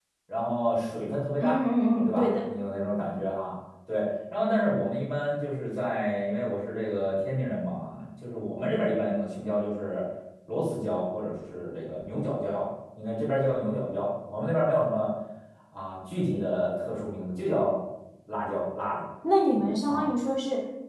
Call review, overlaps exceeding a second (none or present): none